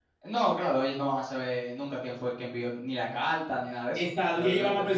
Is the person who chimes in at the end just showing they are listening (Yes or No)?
No